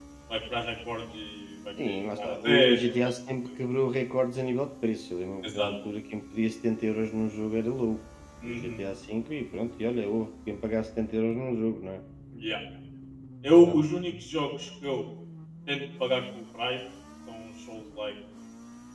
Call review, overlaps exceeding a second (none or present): present